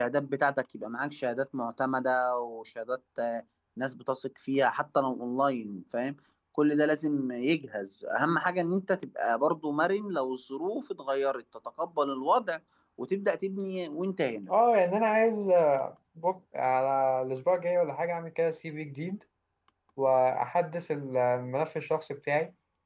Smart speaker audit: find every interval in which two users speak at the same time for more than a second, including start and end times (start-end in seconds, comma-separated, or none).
none